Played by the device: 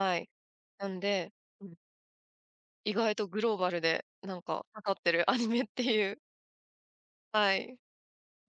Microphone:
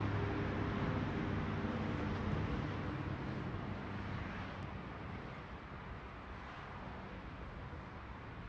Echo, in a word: none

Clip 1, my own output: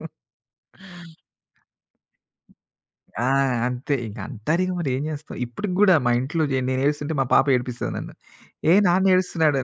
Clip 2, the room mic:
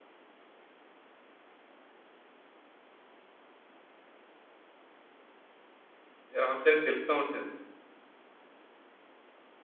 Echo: none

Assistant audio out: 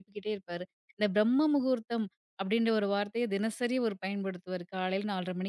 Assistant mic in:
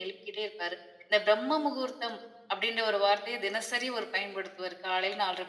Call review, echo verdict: present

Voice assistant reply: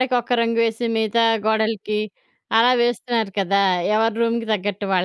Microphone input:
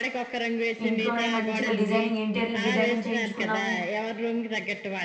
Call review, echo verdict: present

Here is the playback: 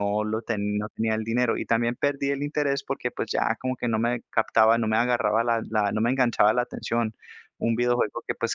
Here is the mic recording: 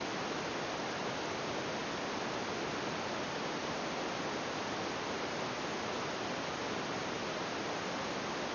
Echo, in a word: none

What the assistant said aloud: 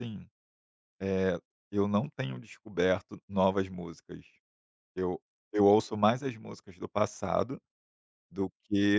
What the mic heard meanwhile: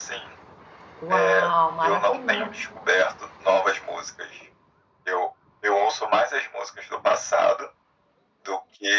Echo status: present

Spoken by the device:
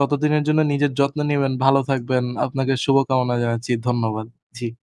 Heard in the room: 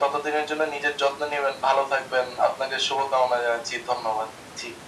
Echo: present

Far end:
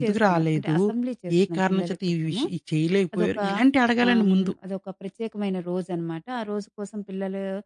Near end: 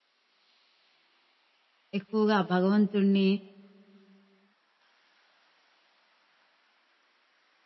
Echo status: none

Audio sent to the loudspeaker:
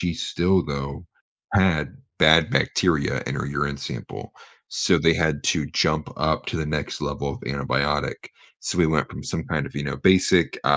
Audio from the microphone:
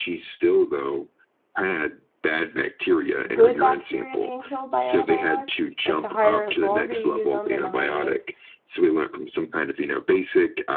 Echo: present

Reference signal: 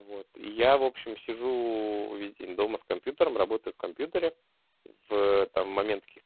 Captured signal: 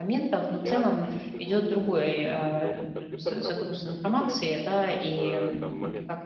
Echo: present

